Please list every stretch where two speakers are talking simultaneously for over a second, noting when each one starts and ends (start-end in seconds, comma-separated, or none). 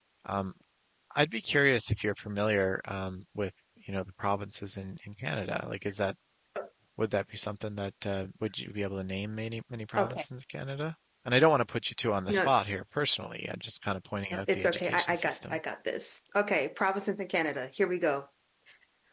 14.3-15.6